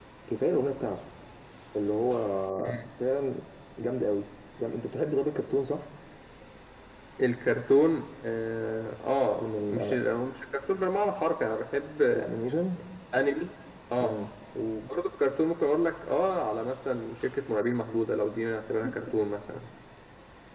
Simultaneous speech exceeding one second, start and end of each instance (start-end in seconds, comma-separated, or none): none